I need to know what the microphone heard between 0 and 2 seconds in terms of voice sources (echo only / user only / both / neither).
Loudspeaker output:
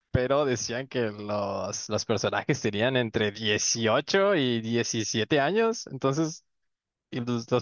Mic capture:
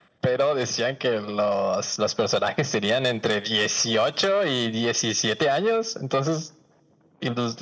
echo only